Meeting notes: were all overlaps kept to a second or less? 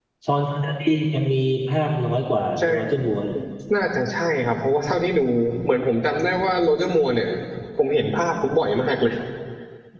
Yes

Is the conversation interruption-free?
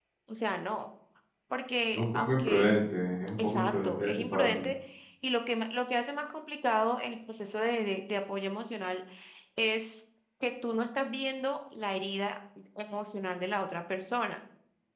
No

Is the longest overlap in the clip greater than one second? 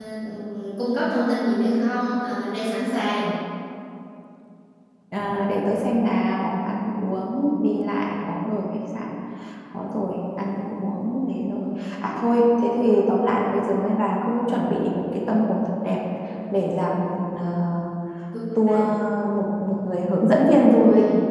No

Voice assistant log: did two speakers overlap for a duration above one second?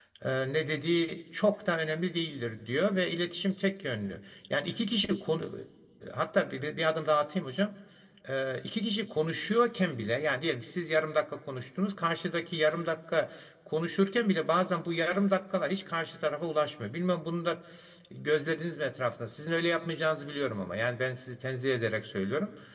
No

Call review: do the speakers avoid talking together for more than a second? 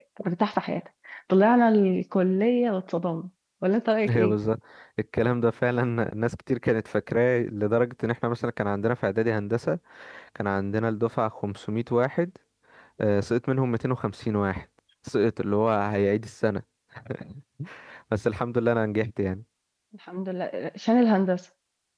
Yes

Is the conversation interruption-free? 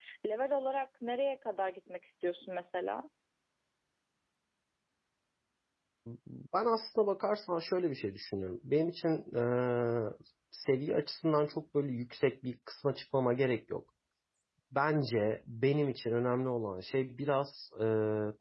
Yes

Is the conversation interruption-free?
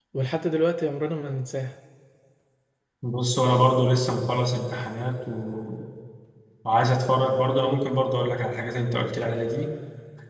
Yes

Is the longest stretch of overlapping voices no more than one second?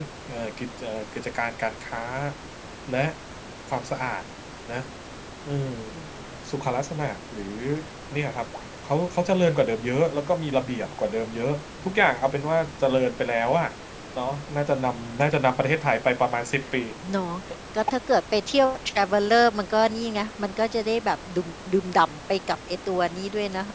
Yes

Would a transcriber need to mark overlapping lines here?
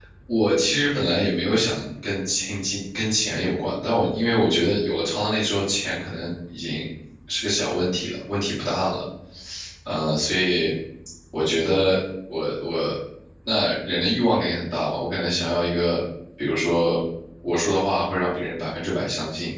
No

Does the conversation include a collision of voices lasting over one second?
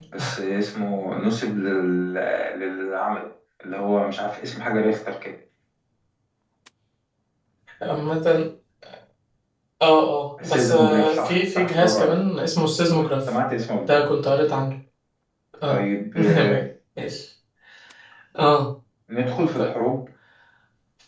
Yes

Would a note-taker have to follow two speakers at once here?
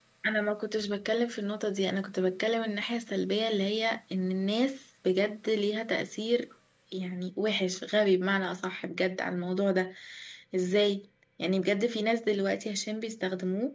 No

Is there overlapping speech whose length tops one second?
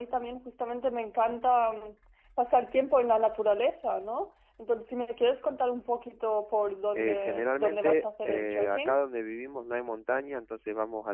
Yes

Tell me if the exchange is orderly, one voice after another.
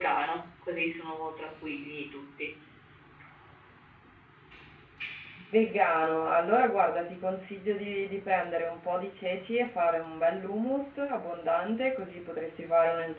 Yes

